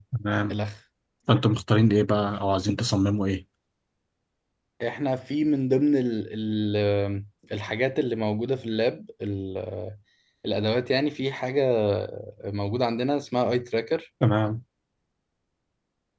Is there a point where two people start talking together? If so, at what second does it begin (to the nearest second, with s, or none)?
none